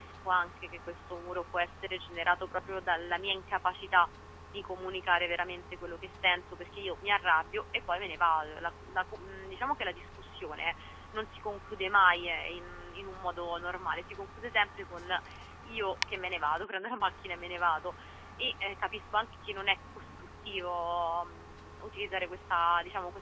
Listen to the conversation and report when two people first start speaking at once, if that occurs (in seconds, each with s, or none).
none